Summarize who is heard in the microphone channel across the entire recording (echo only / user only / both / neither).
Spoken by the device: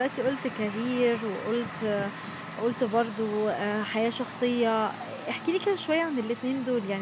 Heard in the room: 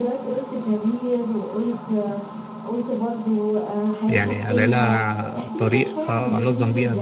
both